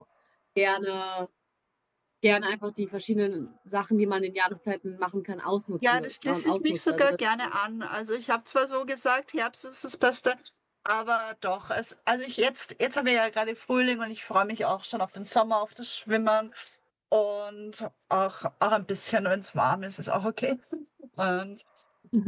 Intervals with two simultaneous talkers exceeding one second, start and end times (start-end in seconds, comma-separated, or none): 5.9-7.1